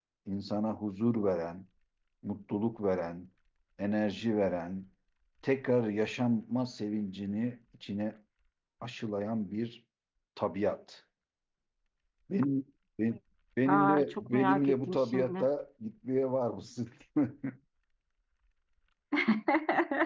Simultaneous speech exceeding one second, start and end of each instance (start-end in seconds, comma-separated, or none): 13.7-15.4